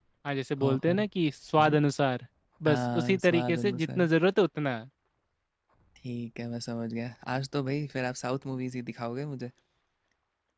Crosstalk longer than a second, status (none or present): present